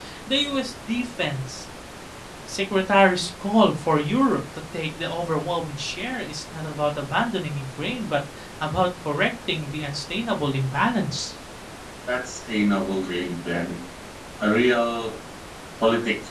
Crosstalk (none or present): none